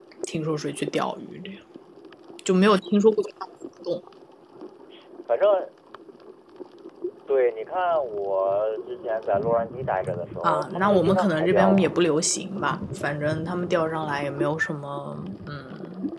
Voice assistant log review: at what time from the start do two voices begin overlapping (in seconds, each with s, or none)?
10.4 s